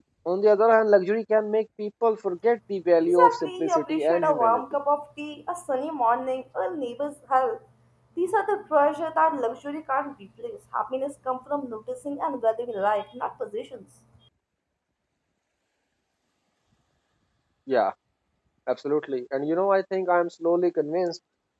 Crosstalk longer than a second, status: present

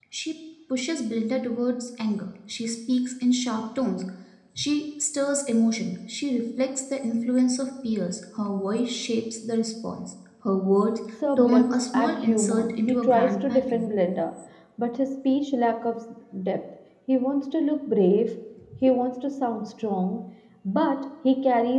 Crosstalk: present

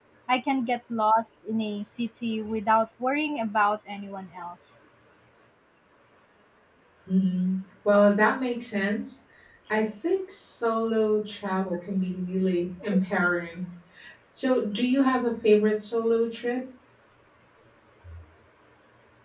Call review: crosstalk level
none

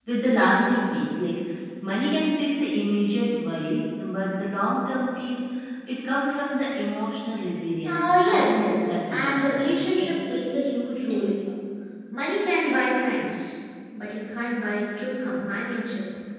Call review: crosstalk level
present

